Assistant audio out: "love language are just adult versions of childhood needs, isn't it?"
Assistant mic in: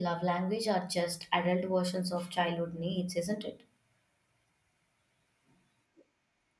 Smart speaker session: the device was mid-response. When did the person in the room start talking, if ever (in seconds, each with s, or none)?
none